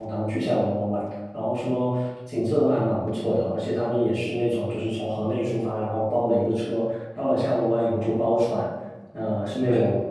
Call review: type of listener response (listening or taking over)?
listening